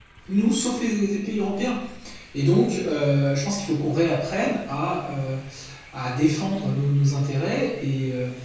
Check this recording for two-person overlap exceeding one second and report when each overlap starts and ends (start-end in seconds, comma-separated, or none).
none